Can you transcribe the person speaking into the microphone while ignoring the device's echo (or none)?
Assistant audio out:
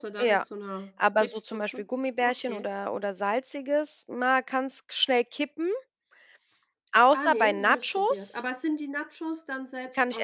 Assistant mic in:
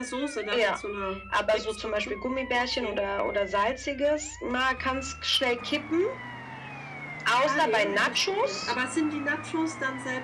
none